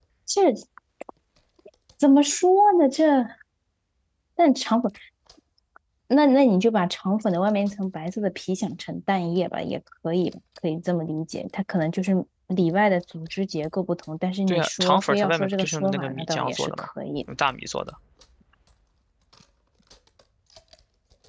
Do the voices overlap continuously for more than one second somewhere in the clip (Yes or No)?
Yes